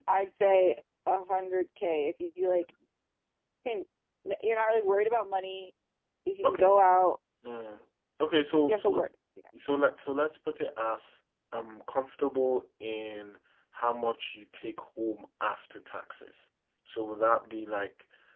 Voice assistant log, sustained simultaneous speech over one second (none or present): none